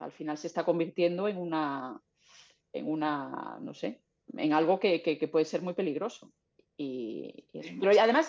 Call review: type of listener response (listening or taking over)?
listening